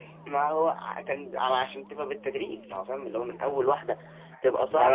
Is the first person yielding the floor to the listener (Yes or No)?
Yes